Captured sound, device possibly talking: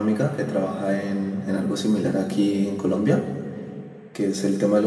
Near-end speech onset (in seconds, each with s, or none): none